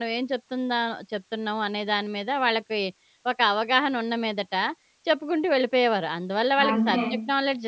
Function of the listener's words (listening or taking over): listening